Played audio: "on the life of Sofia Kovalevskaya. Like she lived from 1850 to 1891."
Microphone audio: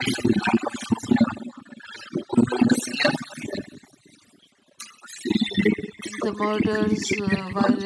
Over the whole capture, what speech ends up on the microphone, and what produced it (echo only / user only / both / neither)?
both